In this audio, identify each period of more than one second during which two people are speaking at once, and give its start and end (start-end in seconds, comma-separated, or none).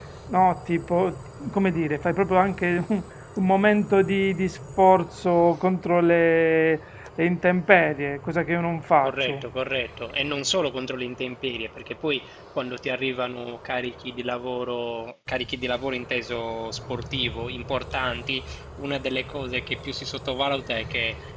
none